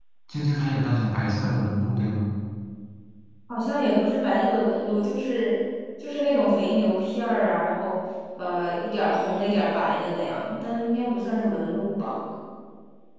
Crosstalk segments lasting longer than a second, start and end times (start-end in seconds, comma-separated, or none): none